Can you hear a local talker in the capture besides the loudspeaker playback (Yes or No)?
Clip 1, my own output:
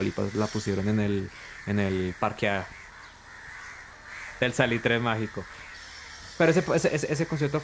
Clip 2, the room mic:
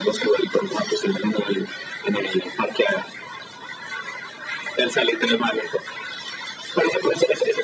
No